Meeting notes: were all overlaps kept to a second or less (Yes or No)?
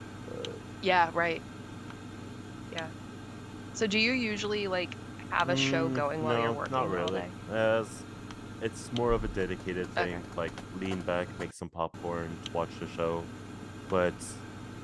No